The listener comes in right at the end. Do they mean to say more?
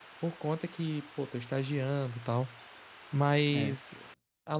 No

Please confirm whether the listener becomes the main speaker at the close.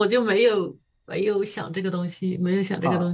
Yes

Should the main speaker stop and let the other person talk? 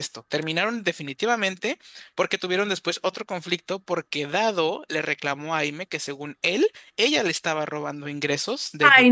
Yes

